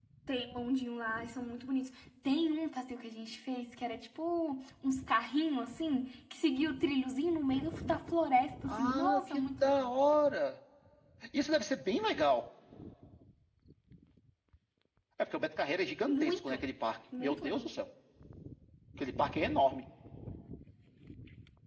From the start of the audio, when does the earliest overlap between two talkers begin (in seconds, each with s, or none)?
8.7 s